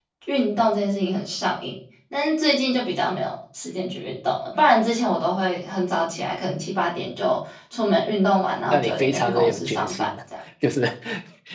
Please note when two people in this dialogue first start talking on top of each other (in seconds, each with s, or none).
8.7 s